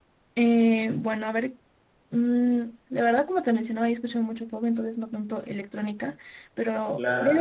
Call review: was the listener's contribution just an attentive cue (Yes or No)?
Yes